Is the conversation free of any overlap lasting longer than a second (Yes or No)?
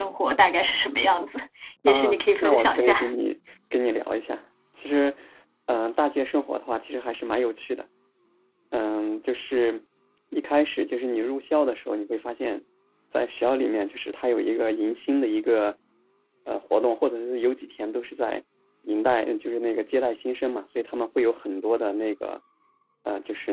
No